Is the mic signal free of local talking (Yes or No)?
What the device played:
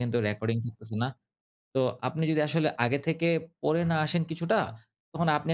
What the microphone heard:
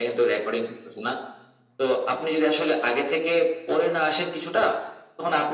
Yes